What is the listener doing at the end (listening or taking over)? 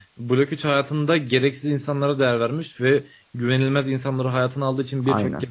listening